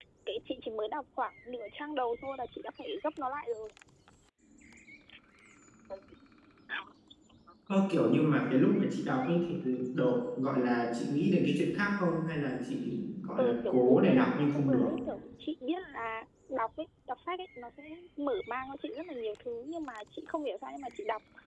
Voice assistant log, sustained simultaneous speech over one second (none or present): present